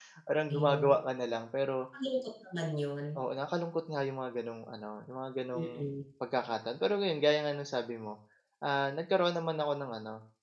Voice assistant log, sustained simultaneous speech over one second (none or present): none